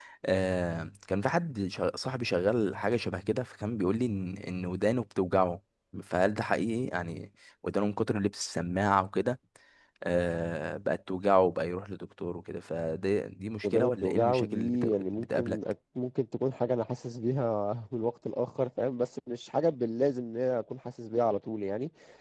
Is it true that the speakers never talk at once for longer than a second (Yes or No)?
No